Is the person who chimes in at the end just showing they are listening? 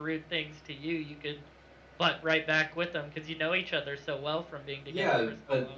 No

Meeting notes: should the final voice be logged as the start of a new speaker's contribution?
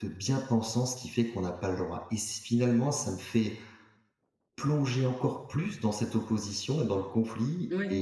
No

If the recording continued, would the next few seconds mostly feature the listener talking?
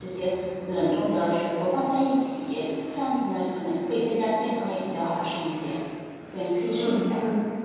Yes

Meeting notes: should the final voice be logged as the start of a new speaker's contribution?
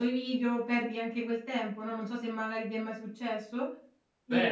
Yes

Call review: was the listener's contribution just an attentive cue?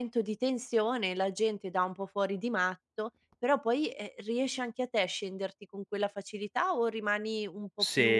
No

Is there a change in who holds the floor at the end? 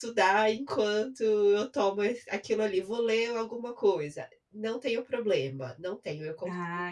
Yes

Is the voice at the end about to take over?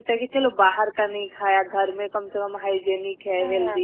Yes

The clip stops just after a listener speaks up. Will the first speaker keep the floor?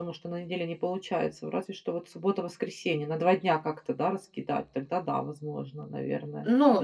No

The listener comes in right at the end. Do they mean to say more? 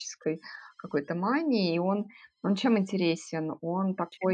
No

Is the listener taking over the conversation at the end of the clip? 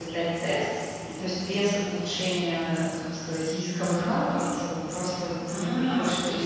Yes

